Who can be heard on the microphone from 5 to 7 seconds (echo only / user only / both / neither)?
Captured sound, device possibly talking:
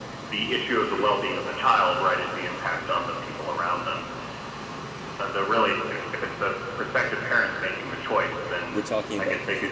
echo only